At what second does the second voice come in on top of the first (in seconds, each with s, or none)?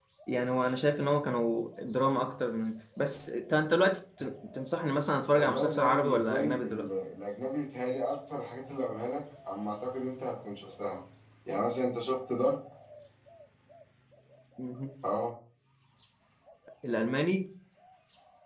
5.3 s